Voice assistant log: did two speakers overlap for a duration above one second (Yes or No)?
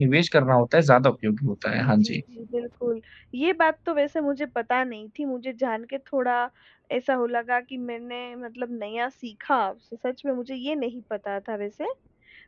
No